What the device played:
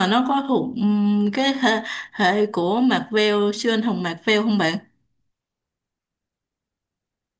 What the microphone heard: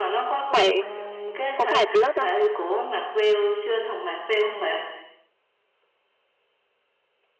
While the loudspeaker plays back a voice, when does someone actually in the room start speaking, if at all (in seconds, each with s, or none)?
0.5 s